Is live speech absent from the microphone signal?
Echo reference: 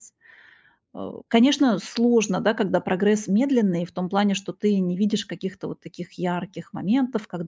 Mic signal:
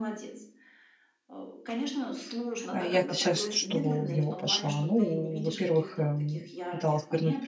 No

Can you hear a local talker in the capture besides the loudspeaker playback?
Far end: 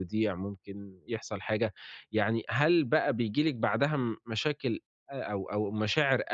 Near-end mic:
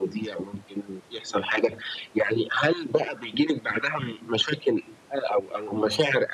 No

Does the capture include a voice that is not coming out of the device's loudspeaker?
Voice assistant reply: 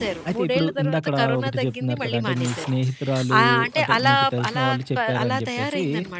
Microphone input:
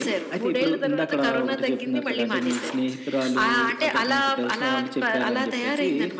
No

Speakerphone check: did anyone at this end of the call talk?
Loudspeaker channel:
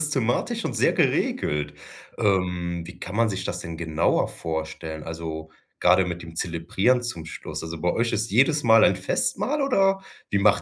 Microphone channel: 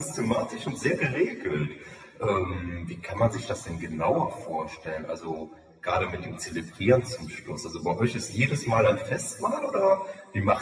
No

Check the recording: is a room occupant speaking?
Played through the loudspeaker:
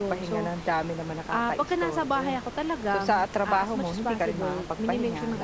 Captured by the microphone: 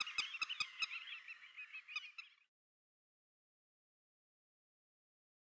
No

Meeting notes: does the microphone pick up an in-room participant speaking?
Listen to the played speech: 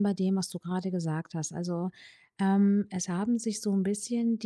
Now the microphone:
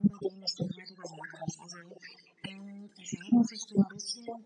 No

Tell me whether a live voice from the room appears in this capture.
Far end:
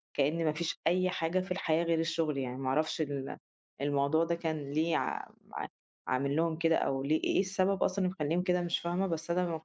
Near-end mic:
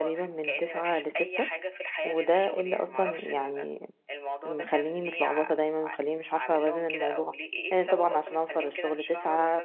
Yes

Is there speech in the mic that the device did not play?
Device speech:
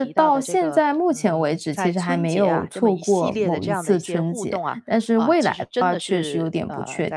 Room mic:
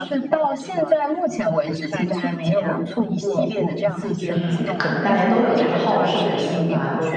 Yes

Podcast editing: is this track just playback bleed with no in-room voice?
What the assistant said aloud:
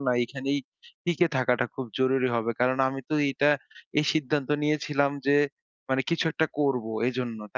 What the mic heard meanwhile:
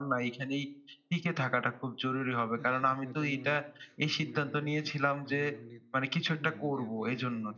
No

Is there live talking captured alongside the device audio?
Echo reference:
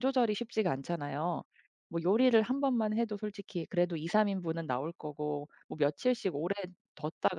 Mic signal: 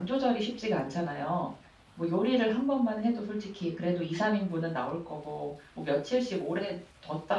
No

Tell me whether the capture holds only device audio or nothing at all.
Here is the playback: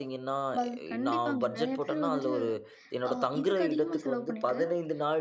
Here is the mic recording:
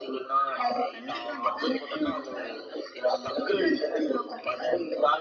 Yes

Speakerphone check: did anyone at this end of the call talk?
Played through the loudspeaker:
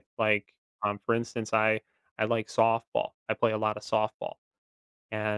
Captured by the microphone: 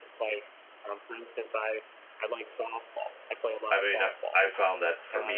Yes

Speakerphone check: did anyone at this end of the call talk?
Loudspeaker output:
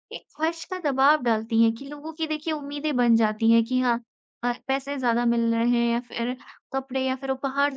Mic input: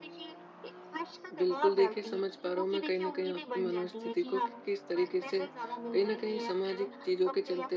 Yes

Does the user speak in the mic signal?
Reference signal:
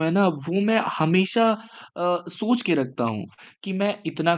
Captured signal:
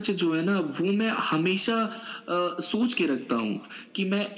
No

